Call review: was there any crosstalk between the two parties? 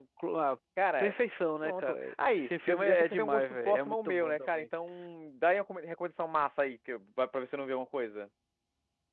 Yes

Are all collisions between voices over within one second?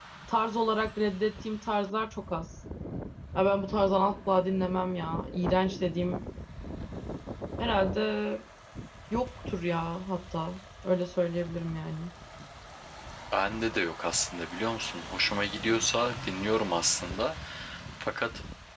Yes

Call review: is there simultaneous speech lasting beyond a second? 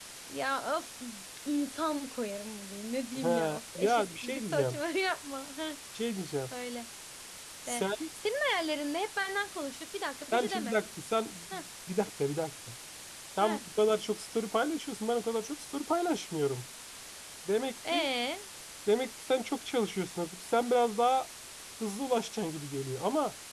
Yes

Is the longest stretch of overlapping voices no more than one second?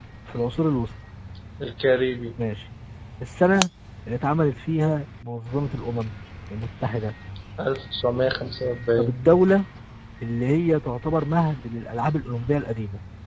Yes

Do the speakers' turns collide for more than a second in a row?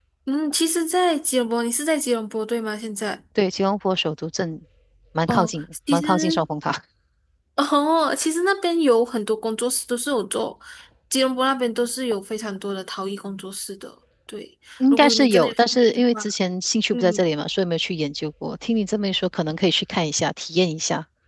Yes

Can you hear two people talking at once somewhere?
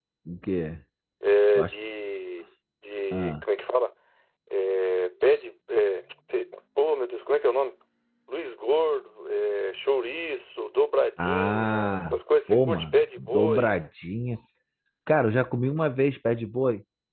Yes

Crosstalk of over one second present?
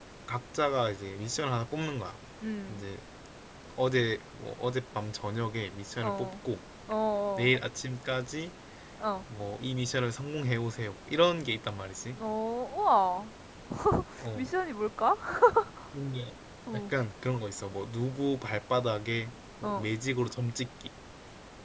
No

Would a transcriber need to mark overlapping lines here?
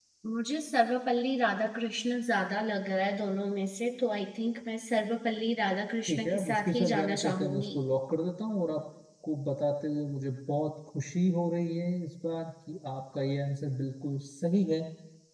Yes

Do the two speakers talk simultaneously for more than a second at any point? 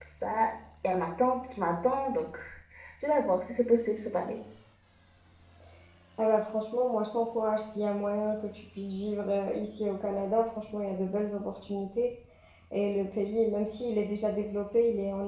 No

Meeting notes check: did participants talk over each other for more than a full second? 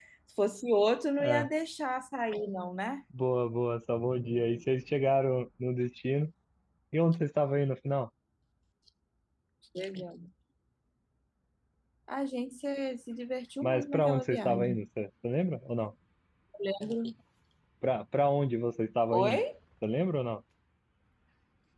Yes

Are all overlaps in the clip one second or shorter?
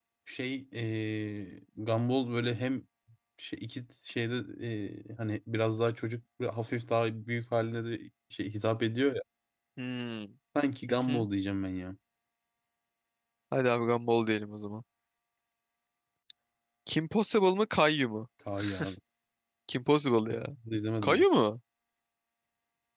Yes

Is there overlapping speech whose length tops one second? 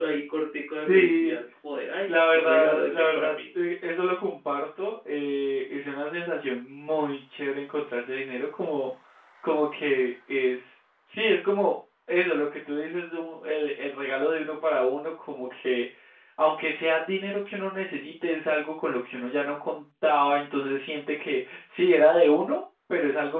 Yes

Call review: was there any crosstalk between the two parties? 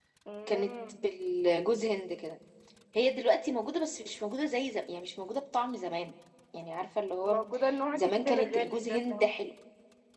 Yes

